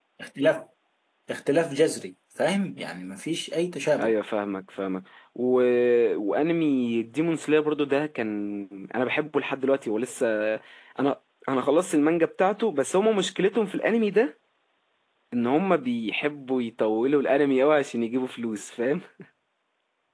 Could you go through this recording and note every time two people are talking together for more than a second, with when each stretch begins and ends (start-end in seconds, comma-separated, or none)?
none